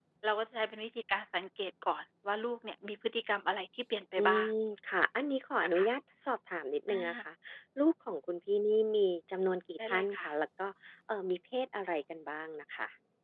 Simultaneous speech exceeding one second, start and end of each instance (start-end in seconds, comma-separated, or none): none